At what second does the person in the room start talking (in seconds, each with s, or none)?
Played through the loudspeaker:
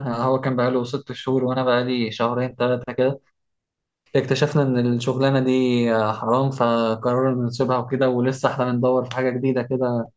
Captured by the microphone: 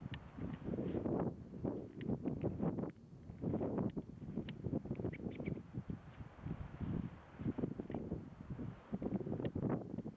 none